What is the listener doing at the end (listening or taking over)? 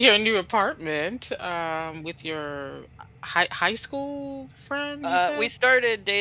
taking over